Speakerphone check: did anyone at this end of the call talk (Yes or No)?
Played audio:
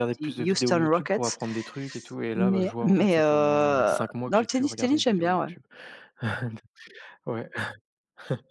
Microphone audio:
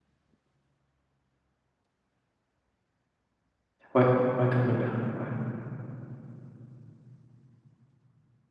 Yes